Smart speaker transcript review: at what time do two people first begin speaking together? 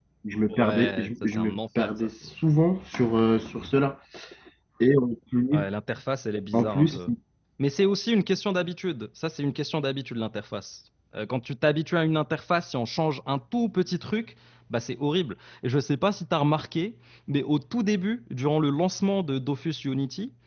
0.5 s

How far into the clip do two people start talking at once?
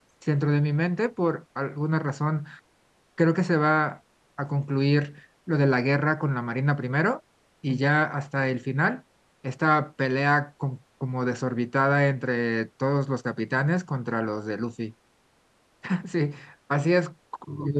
none

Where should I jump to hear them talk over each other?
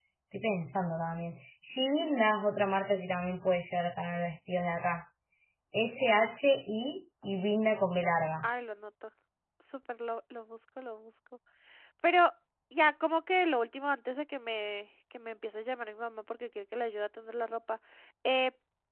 none

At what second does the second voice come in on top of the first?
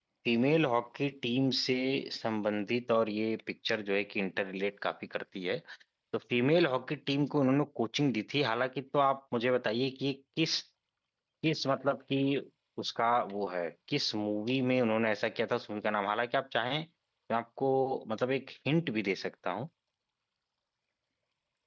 none

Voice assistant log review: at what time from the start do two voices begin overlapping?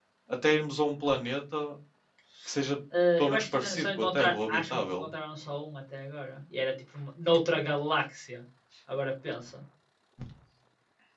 3.2 s

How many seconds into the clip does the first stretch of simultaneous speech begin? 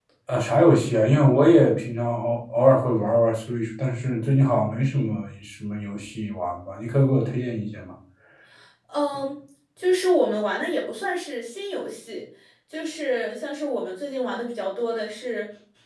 none

